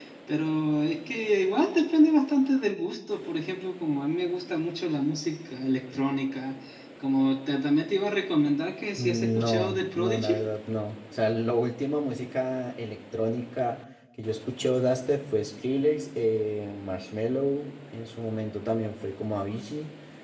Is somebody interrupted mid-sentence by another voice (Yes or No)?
Yes